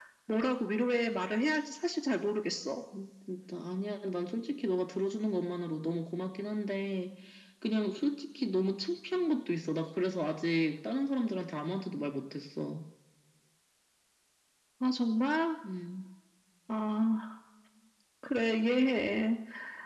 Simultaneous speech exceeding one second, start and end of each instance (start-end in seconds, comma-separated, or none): none